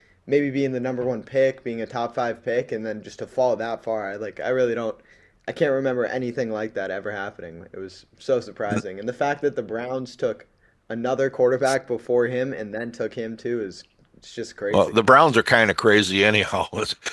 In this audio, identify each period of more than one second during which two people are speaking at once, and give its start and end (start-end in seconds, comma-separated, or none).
none